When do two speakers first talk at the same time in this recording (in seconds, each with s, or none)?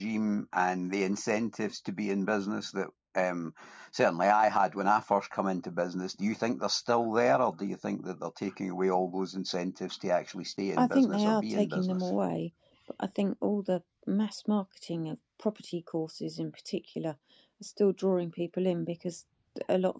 10.8 s